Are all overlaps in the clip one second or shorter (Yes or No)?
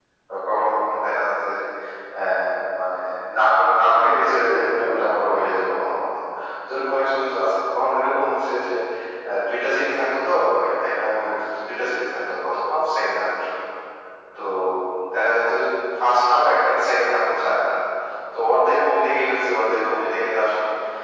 No